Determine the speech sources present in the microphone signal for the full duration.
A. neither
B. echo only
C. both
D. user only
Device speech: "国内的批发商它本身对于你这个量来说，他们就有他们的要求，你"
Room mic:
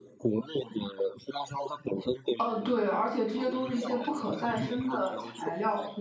C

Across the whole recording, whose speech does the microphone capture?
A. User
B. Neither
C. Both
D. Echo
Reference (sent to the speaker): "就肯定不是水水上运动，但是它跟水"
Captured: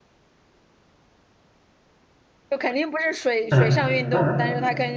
C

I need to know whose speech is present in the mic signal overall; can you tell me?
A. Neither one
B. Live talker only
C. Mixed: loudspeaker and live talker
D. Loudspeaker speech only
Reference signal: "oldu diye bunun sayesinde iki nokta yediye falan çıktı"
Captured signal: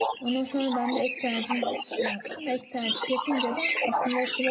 C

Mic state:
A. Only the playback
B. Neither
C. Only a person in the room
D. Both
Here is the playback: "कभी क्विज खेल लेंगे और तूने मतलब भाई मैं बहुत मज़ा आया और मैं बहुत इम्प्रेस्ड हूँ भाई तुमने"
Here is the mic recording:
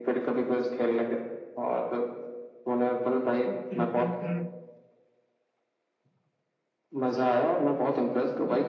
D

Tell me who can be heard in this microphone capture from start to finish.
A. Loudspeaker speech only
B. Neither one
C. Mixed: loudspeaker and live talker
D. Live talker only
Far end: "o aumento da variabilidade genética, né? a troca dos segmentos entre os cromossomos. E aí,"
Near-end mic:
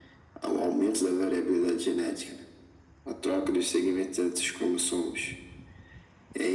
A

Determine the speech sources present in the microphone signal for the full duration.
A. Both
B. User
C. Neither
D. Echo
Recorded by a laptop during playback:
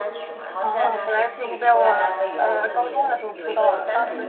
A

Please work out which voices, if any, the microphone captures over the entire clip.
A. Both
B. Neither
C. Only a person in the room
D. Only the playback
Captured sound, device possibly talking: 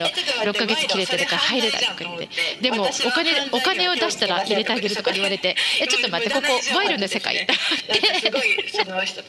A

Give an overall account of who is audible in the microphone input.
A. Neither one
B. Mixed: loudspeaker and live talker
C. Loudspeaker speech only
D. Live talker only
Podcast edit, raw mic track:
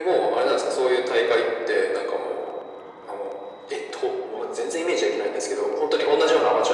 C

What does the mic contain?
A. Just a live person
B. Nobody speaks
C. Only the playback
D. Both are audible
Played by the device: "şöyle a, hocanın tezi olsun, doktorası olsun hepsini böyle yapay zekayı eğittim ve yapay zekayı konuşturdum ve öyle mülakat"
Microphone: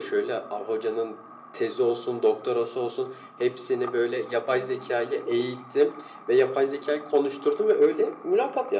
C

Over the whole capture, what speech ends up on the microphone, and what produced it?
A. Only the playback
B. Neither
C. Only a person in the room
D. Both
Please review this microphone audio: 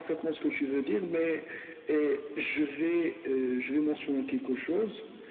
A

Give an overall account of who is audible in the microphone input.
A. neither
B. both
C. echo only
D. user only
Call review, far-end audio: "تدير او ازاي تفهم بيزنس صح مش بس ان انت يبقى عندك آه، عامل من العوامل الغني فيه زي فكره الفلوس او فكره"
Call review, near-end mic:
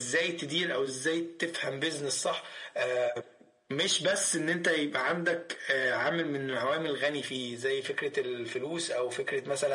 C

